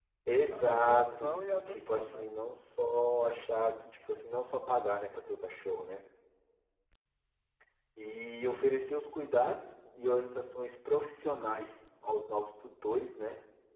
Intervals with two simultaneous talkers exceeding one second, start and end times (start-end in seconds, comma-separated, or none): 0.5-2.3